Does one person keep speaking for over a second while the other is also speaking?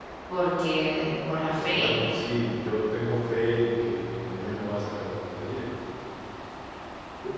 No

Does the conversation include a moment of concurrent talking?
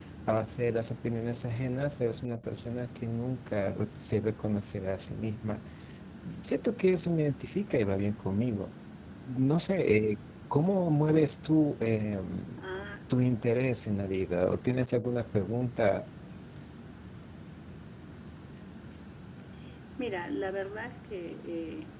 No

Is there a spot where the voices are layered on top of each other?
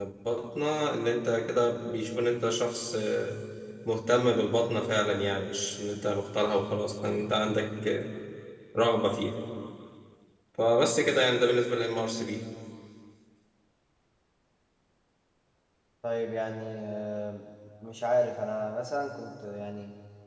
No

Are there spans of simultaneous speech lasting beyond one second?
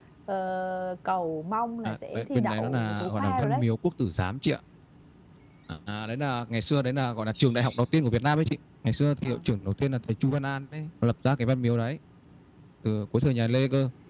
Yes, from 1.9 s

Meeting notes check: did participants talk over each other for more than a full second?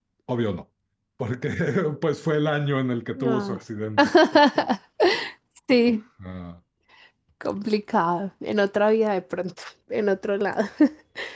No

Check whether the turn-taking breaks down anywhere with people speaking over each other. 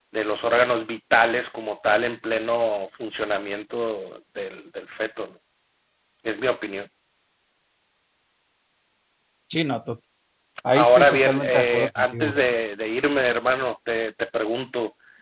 Yes, from 10.7 s

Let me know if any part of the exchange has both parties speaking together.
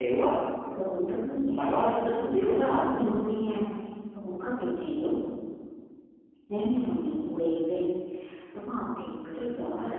Yes, from 1.6 s

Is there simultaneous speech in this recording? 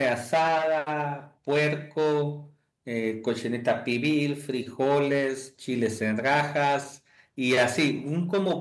No

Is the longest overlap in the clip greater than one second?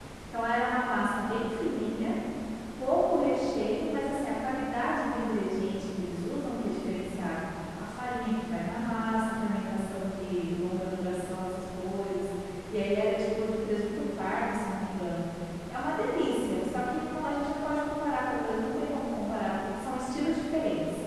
No

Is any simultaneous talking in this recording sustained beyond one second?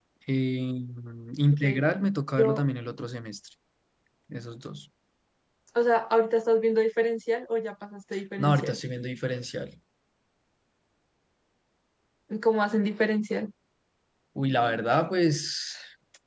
No

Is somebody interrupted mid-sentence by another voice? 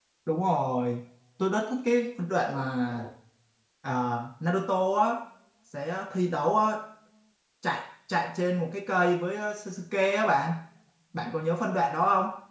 No

